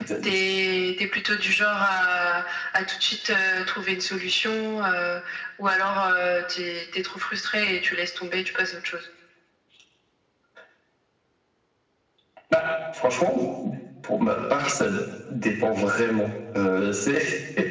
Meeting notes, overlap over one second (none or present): none